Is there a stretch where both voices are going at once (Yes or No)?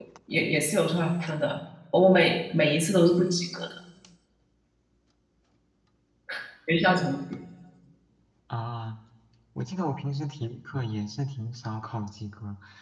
No